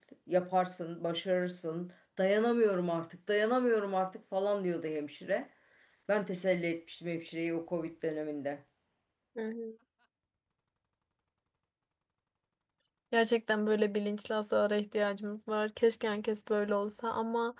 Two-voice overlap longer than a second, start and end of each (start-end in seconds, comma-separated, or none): none